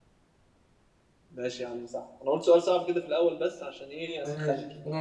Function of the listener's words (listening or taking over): taking over